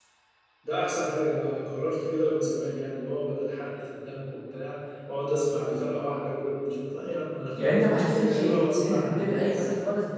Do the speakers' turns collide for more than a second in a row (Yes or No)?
Yes